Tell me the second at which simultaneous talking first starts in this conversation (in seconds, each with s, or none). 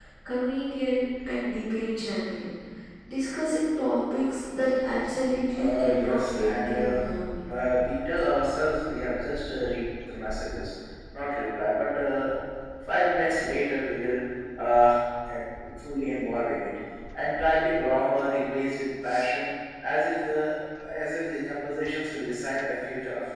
5.5 s